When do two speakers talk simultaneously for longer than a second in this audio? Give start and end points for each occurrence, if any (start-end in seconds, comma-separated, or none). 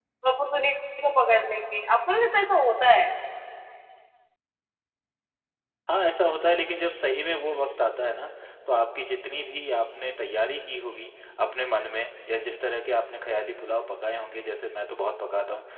none